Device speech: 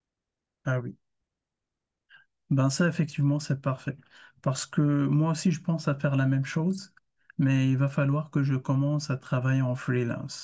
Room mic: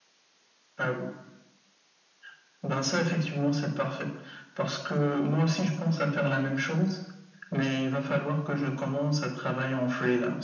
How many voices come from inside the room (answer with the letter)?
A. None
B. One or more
A